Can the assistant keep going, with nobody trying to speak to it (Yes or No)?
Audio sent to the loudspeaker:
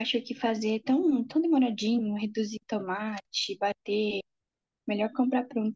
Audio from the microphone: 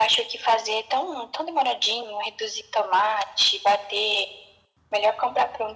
Yes